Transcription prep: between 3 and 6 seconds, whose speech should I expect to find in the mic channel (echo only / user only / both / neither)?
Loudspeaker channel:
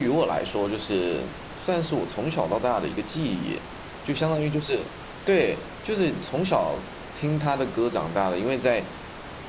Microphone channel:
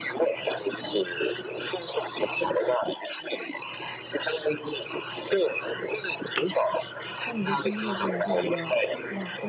echo only